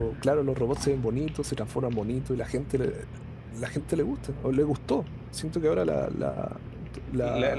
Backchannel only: No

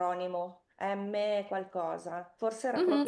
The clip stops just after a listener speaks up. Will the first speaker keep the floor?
No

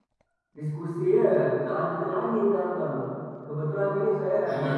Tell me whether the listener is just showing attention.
Yes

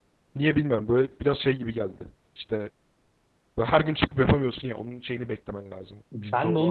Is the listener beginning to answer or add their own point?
Yes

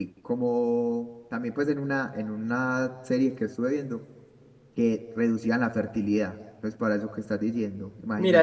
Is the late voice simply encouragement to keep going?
No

